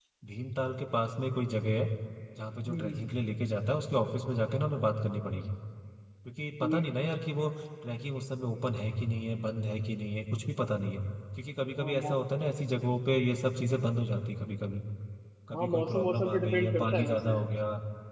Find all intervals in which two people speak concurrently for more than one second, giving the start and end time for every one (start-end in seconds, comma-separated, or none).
15.5-17.3